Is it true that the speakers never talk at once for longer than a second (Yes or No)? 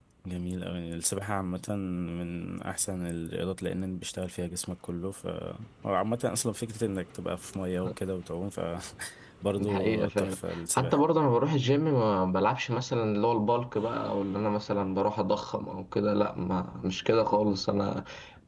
No